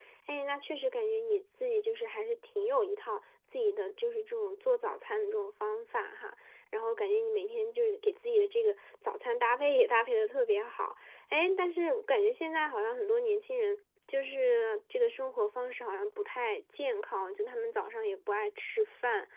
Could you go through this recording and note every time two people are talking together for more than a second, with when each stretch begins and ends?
none

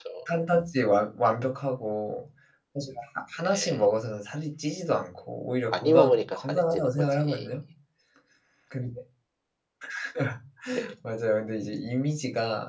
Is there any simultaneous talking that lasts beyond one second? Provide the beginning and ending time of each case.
5.7-7.5

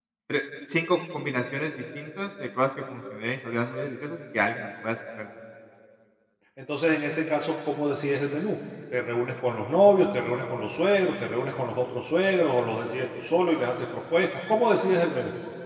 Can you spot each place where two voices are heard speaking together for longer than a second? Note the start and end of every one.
none

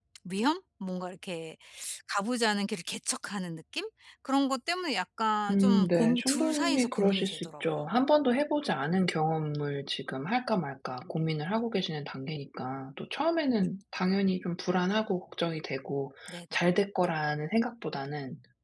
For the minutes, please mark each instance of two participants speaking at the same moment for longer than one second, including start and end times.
5.5-7.6

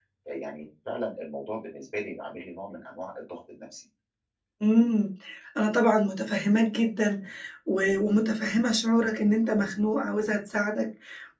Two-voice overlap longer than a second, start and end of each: none

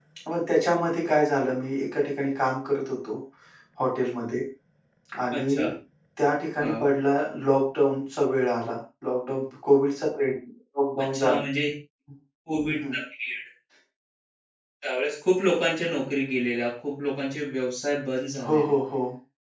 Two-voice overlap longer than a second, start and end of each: none

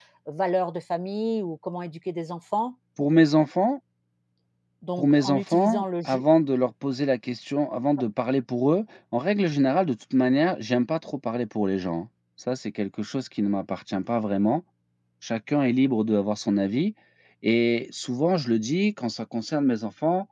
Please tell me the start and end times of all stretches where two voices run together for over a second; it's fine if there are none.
5.0-6.2

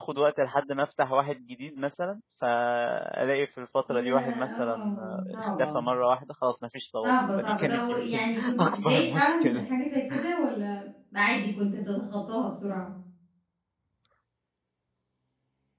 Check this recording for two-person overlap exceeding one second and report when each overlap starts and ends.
3.9-5.8, 7.0-9.6

